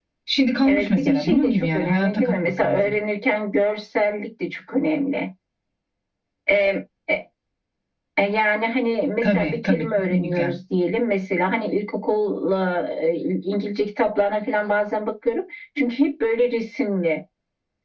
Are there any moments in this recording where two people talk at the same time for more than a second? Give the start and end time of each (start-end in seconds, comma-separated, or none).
0.6-3.0, 9.2-10.6